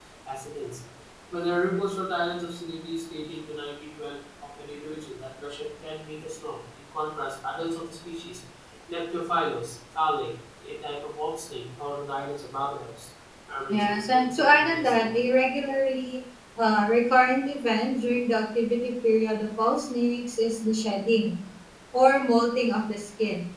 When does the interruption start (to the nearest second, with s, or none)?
14 s